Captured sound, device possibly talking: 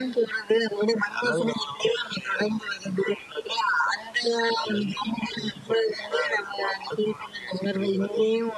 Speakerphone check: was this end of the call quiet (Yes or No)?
Yes